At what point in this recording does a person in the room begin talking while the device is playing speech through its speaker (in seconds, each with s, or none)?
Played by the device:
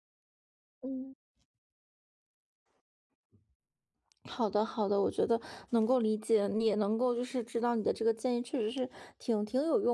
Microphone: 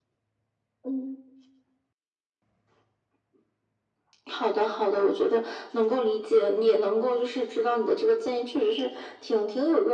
none